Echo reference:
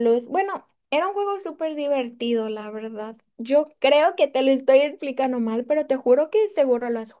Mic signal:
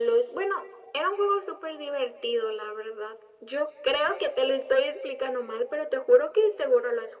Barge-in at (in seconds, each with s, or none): none